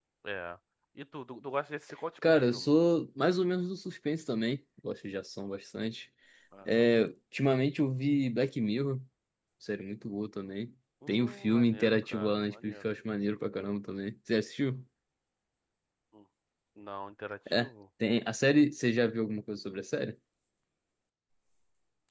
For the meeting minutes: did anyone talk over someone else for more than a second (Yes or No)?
Yes